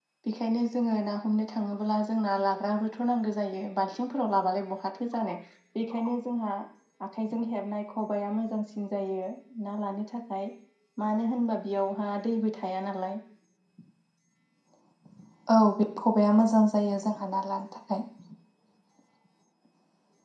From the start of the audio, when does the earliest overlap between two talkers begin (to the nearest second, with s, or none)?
none